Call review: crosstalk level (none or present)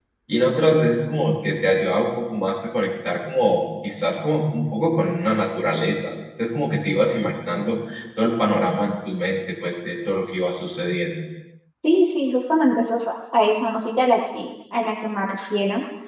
none